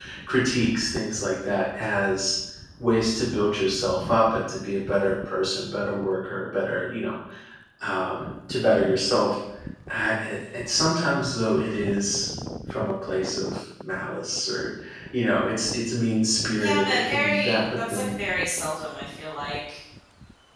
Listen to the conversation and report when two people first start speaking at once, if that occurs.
16.6 s

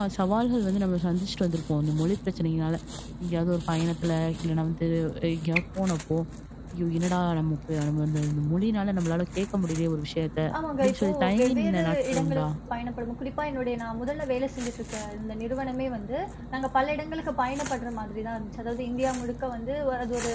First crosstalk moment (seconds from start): 10.5 s

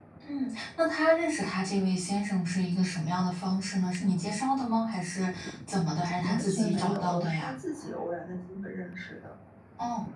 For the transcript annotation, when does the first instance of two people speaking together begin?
6.2 s

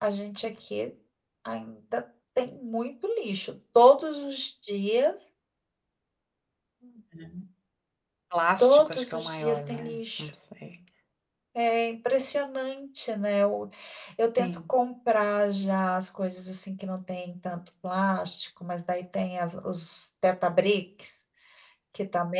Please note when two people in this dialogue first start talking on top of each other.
8.6 s

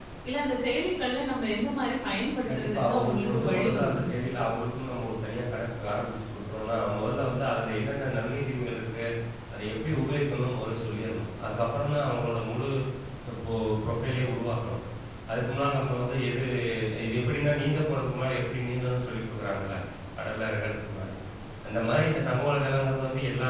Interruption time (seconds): 2.5 s

